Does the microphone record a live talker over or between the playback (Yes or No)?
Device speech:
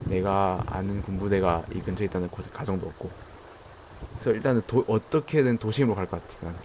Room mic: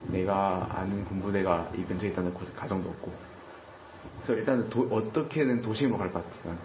No